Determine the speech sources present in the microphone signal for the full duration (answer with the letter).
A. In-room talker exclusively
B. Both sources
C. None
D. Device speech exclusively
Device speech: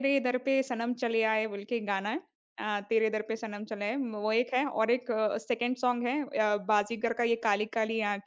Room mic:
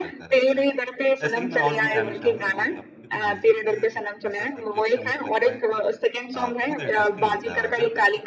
B